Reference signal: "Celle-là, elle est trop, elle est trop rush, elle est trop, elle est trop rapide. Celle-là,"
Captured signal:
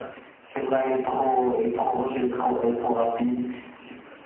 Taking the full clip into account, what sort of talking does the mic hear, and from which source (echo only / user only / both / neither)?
echo only